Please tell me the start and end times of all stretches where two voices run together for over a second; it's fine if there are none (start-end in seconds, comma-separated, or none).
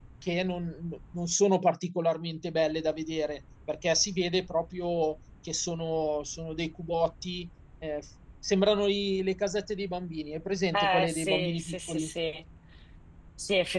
10.7-12.1